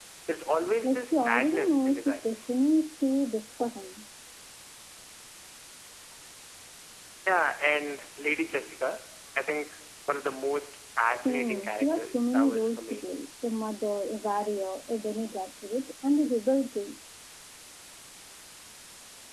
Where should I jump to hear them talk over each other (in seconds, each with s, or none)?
0.8 s